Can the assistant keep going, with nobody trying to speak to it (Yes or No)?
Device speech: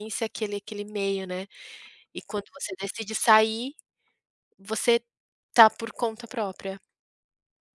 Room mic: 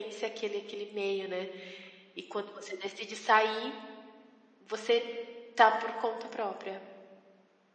Yes